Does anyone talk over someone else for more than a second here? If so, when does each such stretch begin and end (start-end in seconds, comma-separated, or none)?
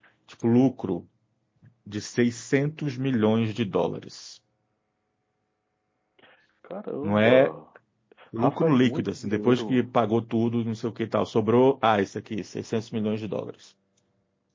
8.4-9.8